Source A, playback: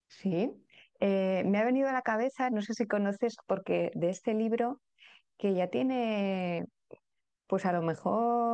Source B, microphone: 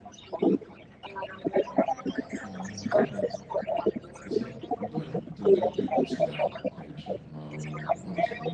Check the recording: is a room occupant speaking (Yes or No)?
Yes